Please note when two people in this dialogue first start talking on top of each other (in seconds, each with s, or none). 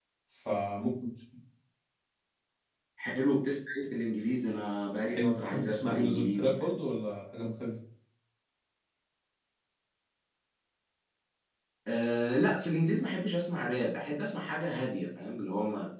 5.0 s